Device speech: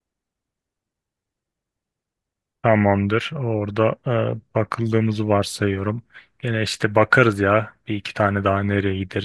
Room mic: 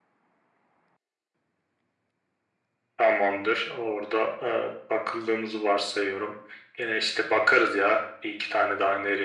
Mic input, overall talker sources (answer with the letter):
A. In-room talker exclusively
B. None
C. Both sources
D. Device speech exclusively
D